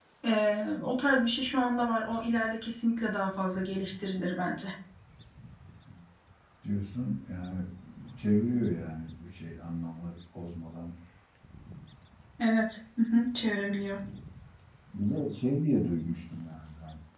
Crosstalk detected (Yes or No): No